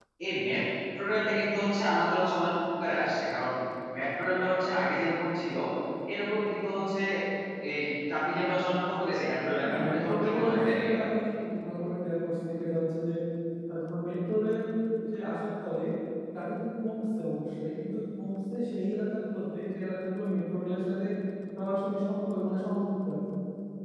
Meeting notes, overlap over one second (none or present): present